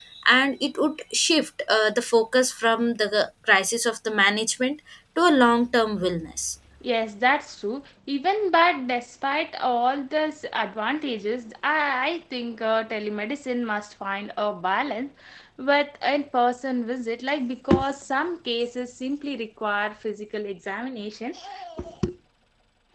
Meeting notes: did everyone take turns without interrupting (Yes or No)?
Yes